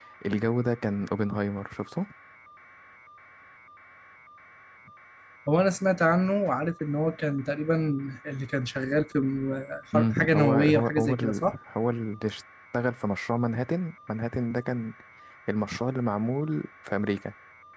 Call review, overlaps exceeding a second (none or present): present